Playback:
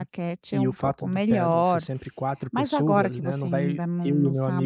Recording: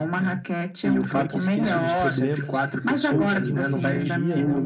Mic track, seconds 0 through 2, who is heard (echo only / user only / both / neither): both